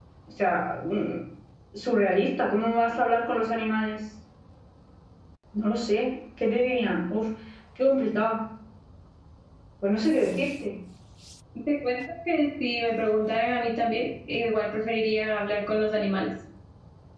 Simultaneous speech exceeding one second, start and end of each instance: none

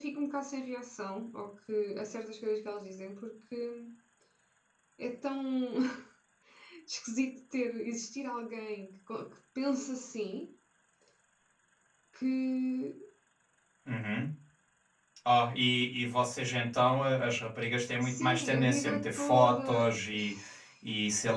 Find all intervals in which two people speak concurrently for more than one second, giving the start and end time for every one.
18.0-19.9

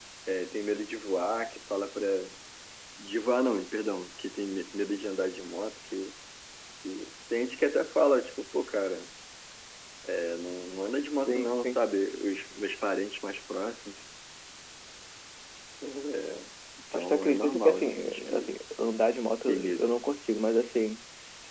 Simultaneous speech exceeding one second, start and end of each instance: 16.9-18.5

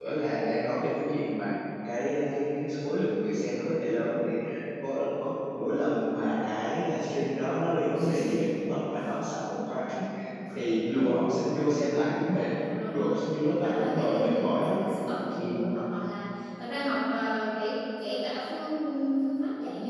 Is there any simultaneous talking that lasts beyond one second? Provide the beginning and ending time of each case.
12.9-14.8

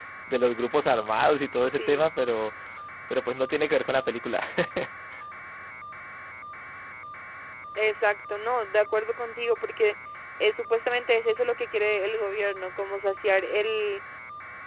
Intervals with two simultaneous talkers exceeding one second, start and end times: none

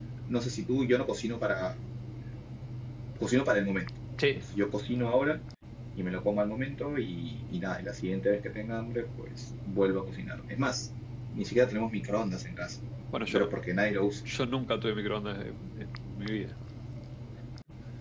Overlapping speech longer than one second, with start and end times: none

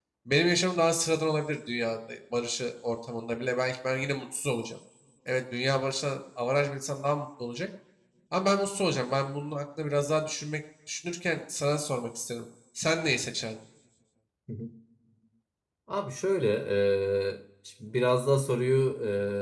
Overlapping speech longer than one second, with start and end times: none

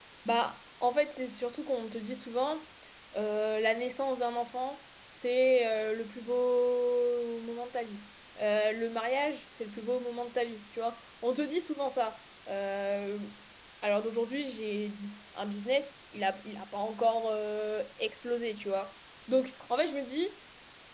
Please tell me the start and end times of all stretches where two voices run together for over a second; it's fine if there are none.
none

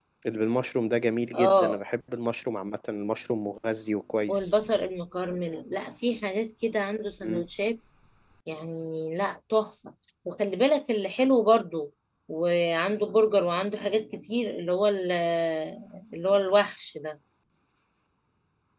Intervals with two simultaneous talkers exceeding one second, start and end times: none

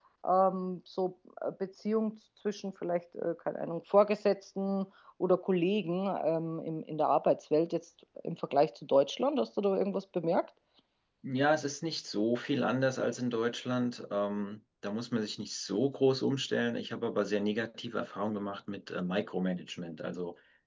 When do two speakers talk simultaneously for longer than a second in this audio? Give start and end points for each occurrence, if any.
none

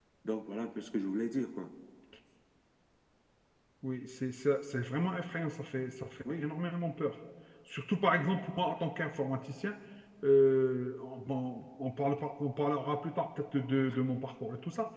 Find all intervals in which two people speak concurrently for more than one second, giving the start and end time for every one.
none

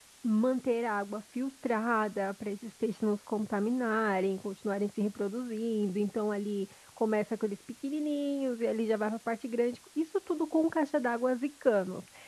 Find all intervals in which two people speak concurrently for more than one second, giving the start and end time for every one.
none

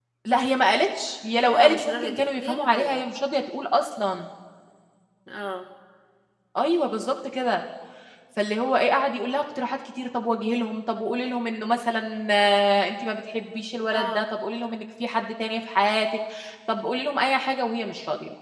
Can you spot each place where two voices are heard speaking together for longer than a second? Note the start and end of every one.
1.4-3.0

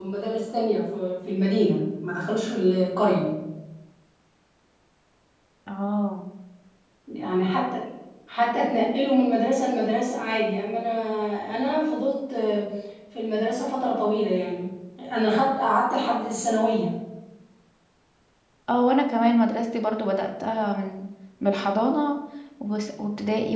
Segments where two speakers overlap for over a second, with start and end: none

